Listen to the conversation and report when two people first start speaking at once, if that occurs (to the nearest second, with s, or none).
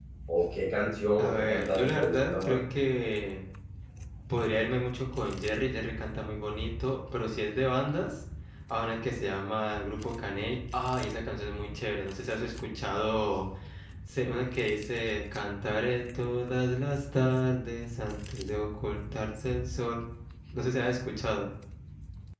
1 s